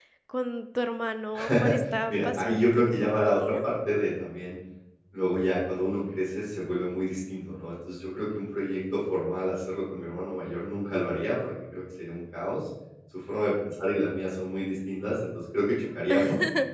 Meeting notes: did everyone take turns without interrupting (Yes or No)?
No